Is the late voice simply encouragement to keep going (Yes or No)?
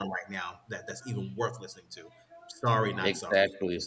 No